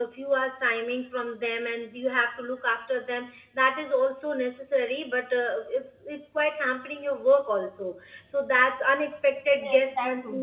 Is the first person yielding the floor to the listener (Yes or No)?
Yes